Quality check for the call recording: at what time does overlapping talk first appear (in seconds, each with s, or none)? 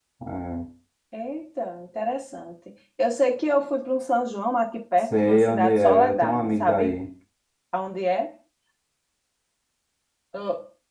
5.1 s